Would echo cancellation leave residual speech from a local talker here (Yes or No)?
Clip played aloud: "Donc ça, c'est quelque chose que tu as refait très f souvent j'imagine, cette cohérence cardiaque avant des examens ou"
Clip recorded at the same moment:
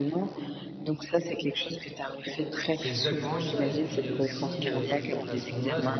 Yes